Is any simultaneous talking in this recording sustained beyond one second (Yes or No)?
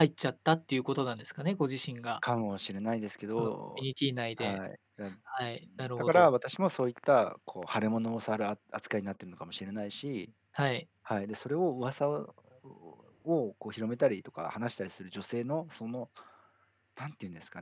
No